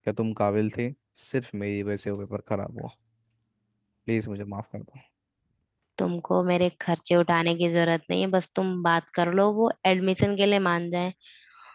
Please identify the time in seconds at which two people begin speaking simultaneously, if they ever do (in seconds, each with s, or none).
none